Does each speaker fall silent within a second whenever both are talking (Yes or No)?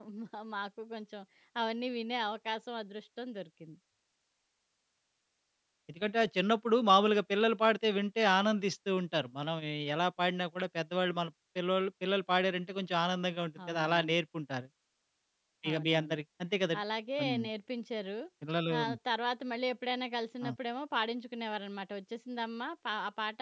Yes